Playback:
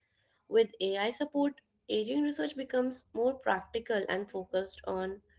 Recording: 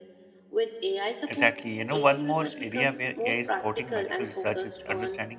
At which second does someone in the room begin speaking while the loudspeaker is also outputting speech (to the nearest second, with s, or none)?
1 s